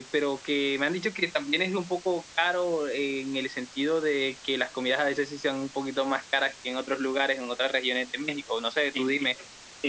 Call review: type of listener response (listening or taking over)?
taking over